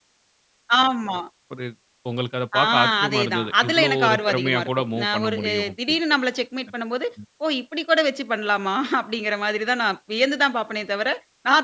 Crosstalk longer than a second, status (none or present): present